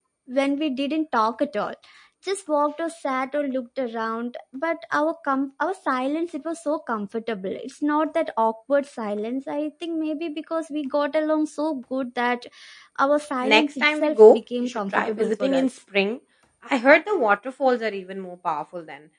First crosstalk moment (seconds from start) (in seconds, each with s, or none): 13.4 s